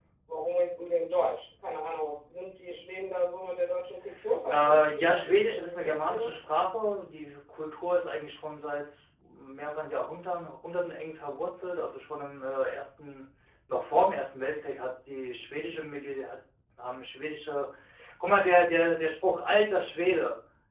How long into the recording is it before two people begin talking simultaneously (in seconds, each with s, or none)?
4.5 s